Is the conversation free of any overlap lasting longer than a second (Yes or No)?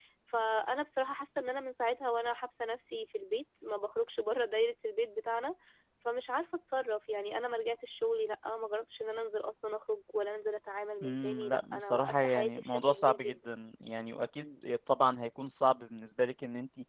No